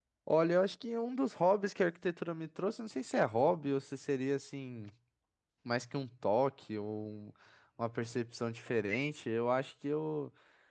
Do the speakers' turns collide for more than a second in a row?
No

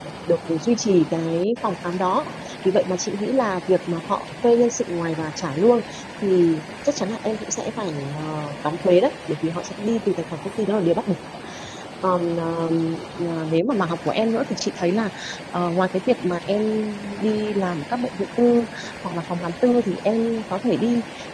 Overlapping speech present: No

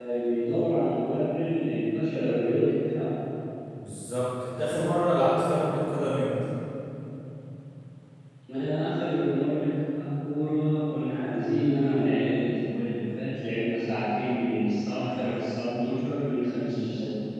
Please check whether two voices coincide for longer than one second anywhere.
No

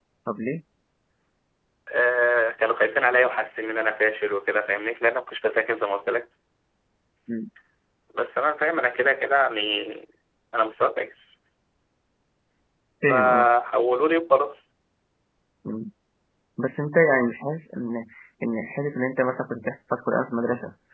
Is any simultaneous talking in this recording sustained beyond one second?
No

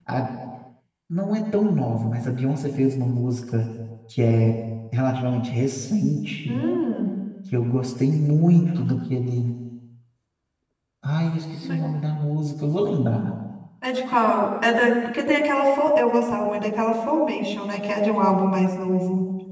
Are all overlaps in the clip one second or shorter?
Yes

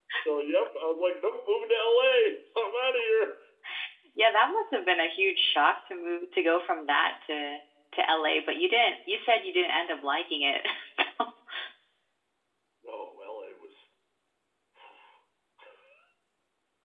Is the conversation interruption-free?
Yes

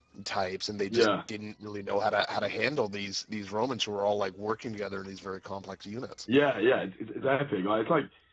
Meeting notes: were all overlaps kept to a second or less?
Yes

